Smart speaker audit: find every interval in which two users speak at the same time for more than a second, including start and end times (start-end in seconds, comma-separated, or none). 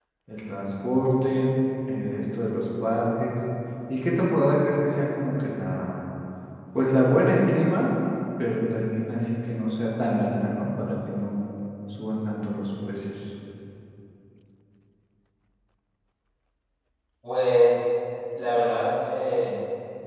none